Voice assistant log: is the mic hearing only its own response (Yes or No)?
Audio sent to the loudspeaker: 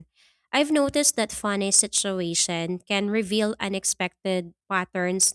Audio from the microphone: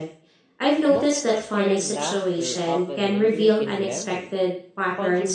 No